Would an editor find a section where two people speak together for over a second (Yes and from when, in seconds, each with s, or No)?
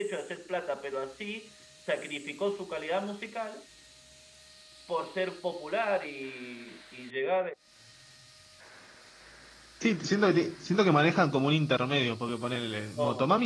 No